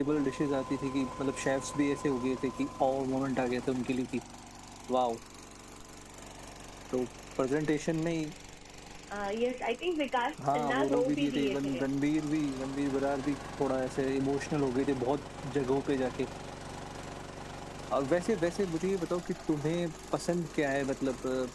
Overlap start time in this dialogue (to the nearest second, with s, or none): 10 s